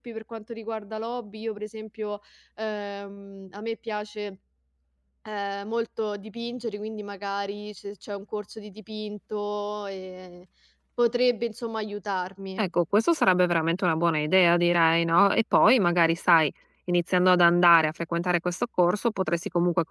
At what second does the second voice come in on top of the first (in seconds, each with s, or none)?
none